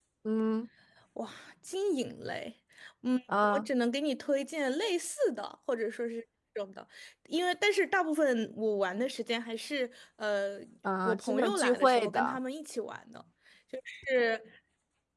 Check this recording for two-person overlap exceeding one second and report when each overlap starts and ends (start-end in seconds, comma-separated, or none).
11.0-12.4